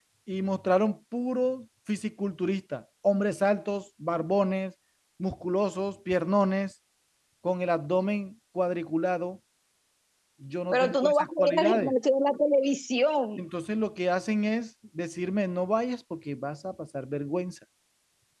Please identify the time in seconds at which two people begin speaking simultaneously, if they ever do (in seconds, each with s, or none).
10.7 s